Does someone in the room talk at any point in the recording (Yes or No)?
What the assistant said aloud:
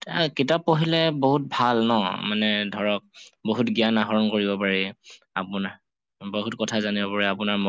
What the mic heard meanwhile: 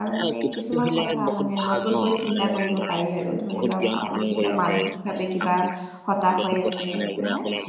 Yes